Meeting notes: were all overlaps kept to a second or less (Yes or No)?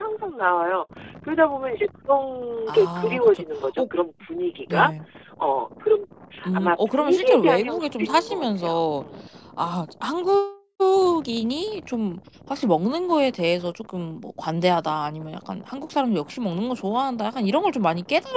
No